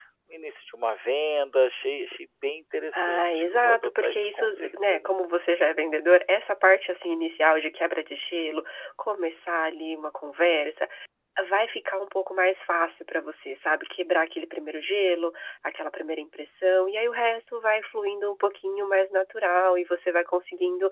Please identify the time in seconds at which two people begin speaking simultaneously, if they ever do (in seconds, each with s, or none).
2.9 s